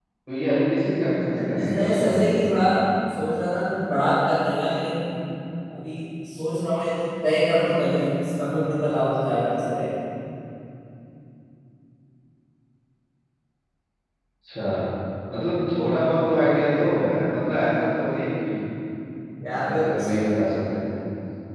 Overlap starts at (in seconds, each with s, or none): 1.2 s